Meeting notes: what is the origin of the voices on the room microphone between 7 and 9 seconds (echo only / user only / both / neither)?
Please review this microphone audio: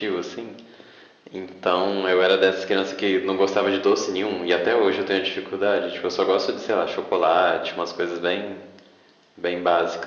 echo only